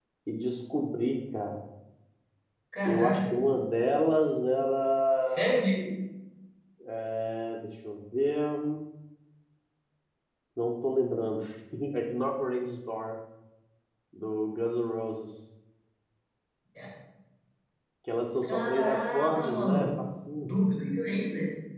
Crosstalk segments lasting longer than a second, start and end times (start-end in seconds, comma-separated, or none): 18.4-20.0